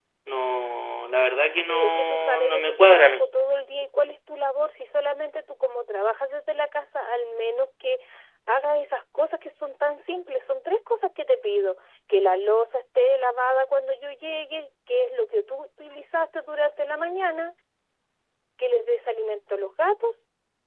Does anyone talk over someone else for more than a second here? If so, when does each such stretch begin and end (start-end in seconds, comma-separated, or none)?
1.6-3.3